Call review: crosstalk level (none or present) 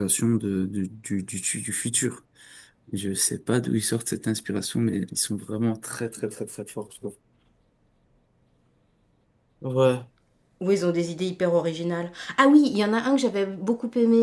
none